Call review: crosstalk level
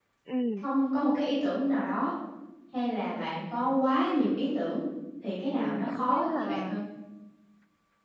present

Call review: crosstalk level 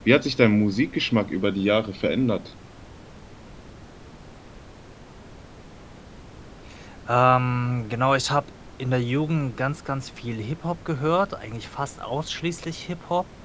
none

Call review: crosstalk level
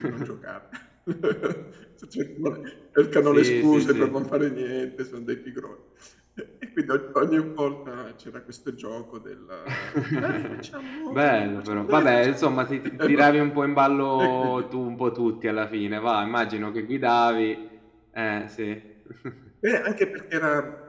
present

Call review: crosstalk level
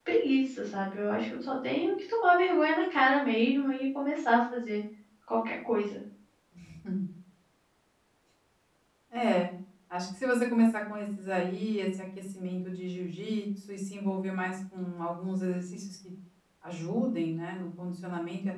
none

